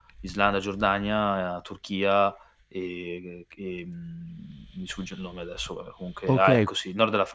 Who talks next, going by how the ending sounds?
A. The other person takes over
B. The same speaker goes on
A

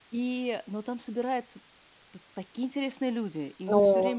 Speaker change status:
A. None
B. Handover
A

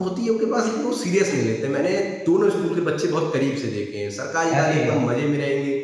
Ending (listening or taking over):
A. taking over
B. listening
B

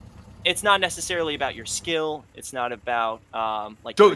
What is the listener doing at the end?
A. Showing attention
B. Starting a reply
B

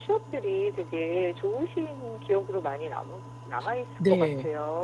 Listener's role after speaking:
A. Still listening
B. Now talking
B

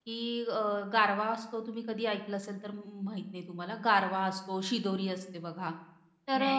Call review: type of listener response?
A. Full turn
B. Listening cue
B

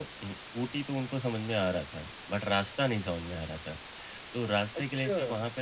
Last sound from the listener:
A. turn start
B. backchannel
B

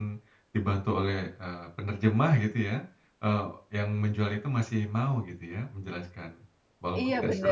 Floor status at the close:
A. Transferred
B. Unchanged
A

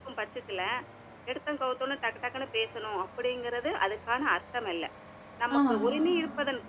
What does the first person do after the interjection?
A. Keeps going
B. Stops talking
A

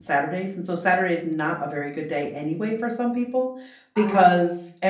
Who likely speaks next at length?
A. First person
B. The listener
A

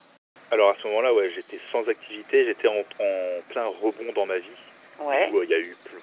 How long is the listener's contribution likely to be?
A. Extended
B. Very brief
B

